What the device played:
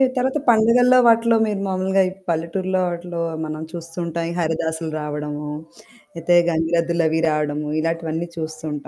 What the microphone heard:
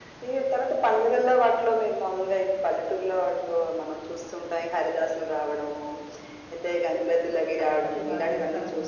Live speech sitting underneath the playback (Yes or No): Yes